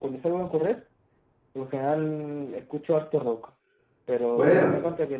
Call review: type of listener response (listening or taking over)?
listening